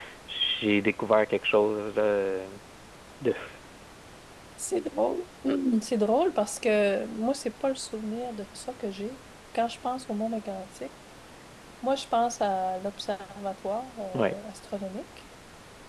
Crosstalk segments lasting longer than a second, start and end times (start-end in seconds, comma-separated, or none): none